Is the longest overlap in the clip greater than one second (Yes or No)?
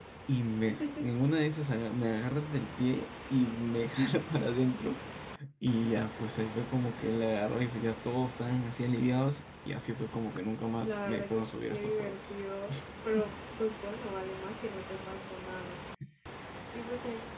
Yes